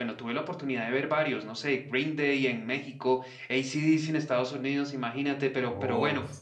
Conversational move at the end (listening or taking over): listening